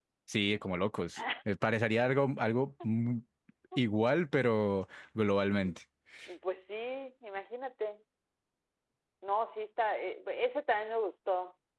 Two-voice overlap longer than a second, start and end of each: none

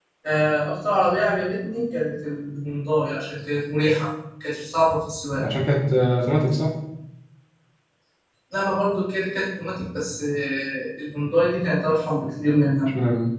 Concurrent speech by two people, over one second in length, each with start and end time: none

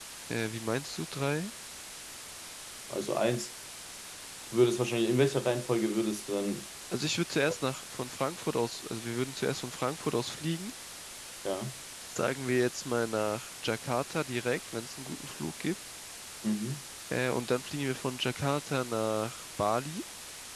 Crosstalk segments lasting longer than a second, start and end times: none

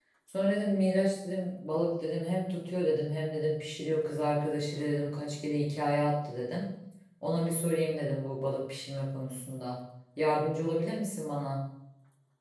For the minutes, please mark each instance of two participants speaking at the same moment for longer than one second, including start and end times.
none

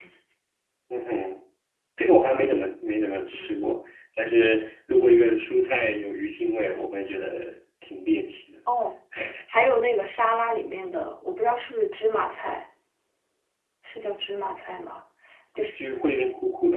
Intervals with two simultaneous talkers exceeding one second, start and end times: none

